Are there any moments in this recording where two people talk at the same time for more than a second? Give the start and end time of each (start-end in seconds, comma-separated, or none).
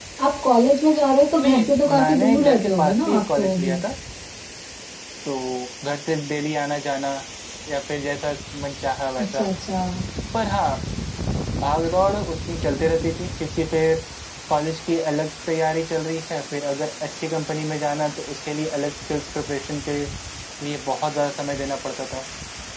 1.4-3.8